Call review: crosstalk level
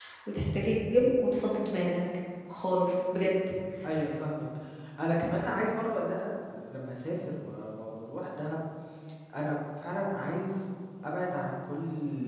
none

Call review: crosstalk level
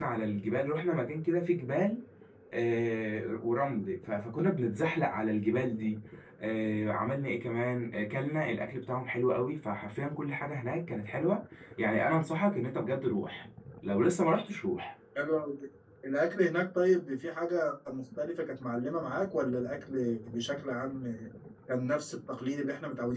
none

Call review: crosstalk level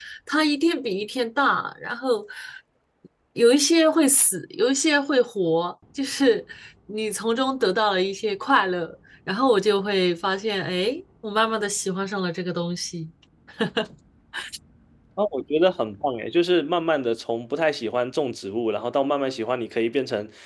none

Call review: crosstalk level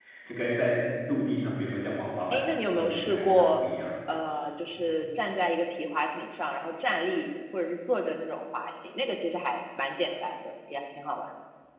present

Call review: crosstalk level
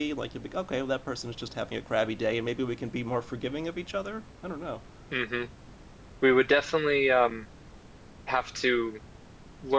none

